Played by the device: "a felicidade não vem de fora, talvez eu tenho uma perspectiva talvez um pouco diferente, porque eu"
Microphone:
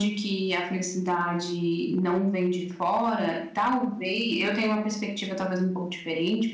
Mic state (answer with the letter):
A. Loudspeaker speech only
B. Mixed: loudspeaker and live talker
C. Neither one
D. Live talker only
A